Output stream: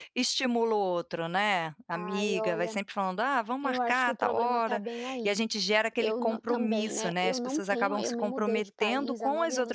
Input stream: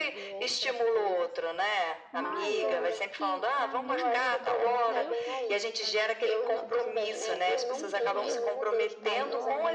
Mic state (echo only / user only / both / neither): both